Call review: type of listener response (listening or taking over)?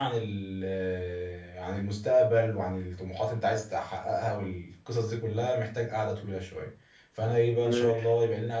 listening